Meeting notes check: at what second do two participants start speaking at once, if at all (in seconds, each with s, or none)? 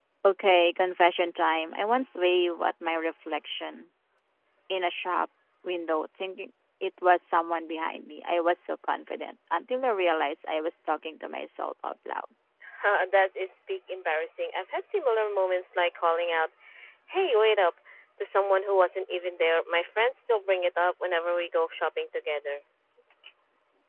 none